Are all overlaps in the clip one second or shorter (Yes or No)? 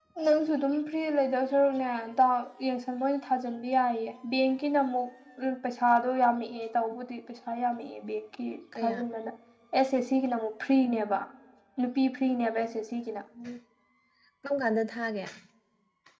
Yes